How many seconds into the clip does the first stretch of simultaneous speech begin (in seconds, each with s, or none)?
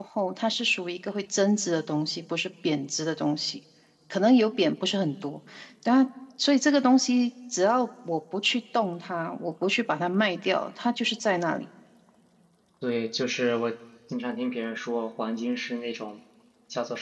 none